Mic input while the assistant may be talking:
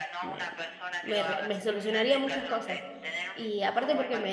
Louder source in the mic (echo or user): user